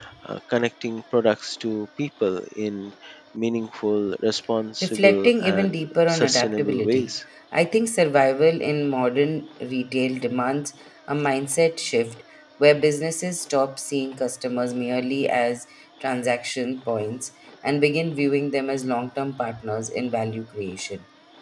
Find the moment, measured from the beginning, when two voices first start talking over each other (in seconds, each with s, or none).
4.8 s